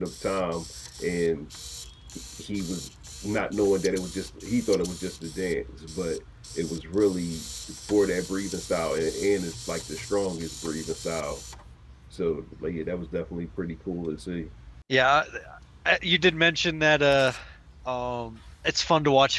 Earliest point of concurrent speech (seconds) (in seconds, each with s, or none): none